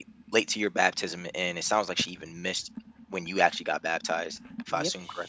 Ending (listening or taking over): taking over